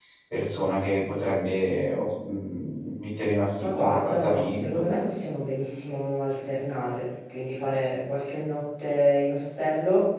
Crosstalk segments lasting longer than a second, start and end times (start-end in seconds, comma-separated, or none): 3.6-4.8